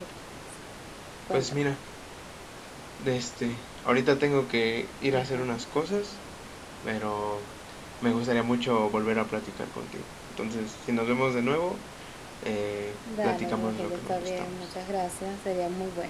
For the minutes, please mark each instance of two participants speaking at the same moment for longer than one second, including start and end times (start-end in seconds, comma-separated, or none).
13.2-14.7